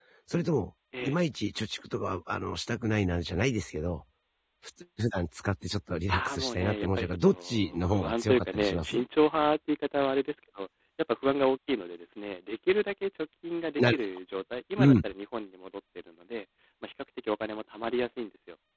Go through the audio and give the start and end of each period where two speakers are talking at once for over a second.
6.1-9.0

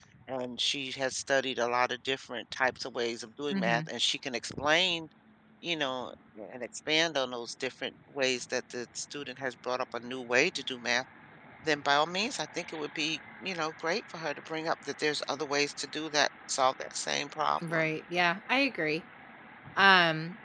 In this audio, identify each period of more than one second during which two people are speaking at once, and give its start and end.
none

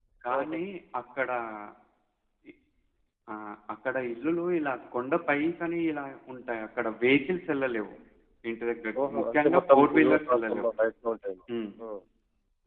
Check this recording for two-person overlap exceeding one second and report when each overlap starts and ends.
9.0-10.7

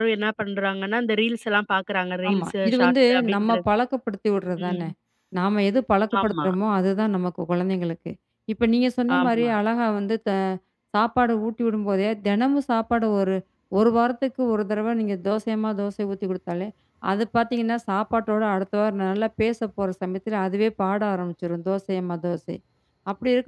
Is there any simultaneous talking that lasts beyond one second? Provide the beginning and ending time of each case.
2.3-3.6

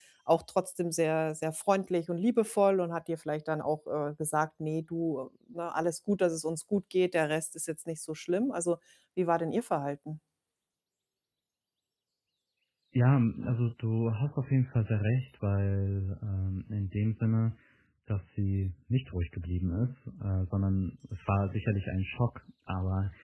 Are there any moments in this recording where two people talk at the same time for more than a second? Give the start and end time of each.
none

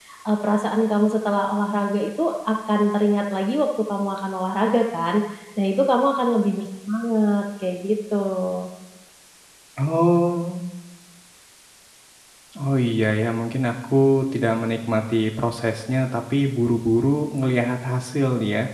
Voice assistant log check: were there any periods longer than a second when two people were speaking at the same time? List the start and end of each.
none

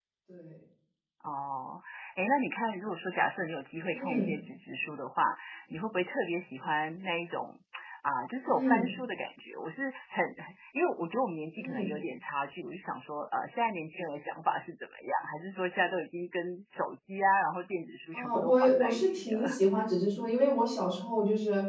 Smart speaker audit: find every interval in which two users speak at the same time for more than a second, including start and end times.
18.1-19.6

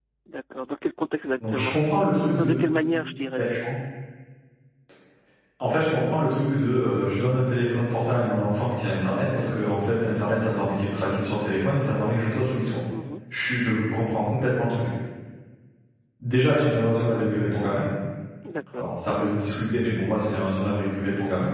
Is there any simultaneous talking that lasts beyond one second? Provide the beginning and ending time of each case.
none

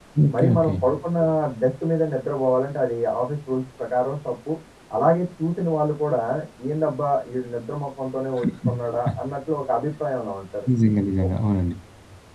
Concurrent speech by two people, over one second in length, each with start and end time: none

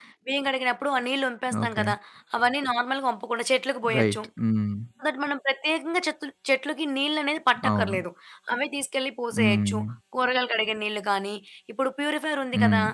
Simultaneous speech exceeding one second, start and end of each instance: none

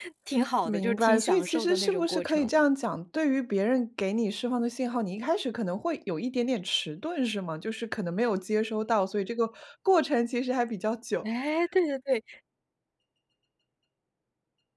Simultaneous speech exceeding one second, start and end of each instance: 0.7-2.5

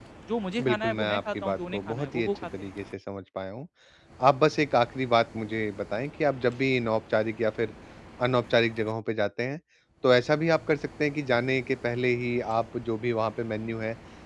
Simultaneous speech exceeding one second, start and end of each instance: 0.6-2.5

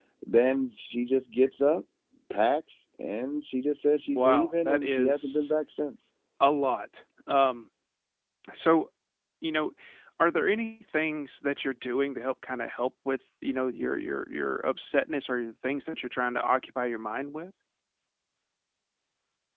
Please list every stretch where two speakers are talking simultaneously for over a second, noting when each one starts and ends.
4.1-5.5

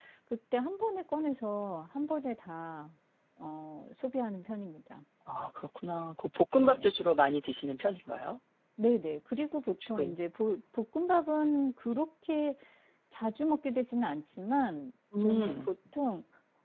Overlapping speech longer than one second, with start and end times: none

